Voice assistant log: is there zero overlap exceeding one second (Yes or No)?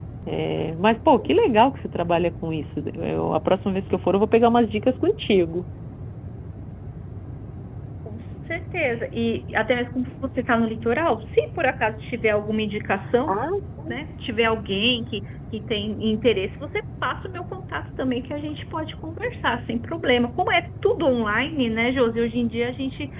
Yes